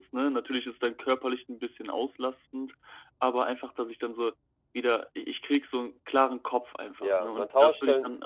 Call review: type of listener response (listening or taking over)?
taking over